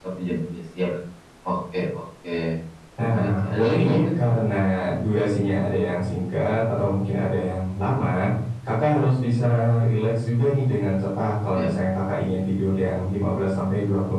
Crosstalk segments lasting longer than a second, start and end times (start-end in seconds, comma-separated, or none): 3.1-4.3